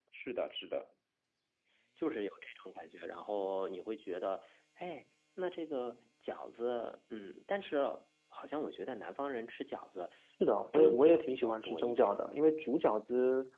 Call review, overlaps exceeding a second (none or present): present